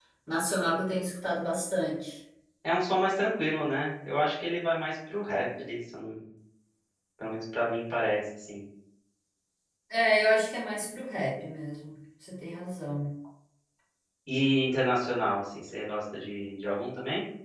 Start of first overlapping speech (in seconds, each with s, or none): none